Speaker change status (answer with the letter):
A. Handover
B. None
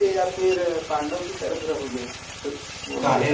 A